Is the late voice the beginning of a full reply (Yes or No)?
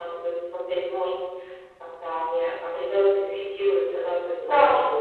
Yes